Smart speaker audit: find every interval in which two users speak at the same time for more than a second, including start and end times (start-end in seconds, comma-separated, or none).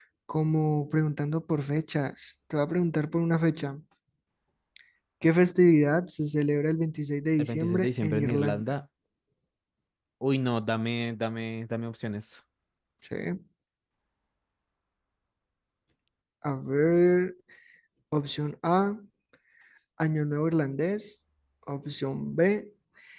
7.4-8.6